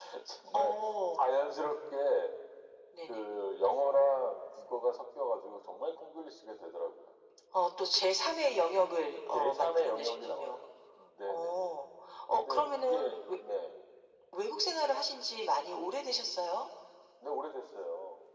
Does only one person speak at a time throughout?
No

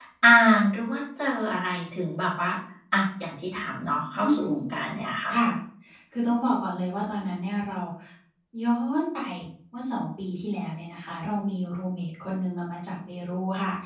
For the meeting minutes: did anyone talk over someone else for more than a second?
No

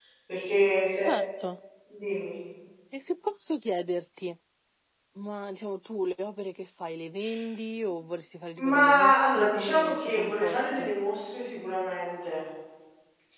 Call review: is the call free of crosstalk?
No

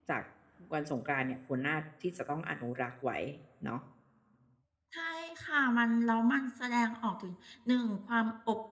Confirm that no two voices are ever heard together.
Yes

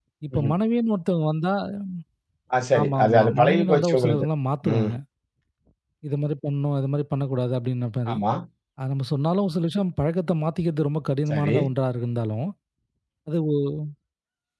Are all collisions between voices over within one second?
No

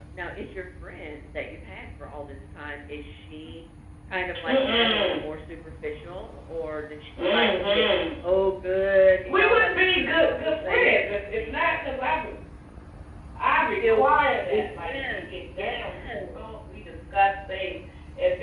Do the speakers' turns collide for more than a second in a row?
Yes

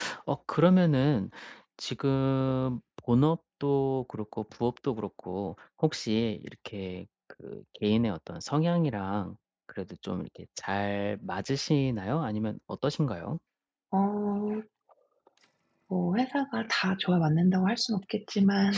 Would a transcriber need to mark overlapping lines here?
No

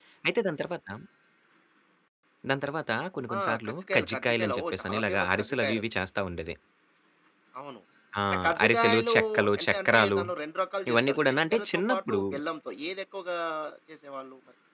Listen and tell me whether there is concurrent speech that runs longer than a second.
Yes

